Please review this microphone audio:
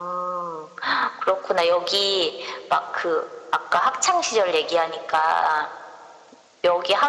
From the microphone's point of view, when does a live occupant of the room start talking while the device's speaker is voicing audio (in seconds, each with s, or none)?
none